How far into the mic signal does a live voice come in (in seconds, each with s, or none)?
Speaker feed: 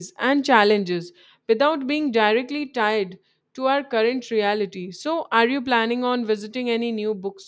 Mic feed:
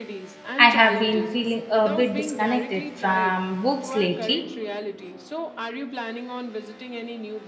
0.7 s